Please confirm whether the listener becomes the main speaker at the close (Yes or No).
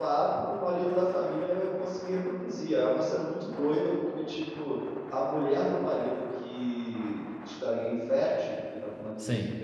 No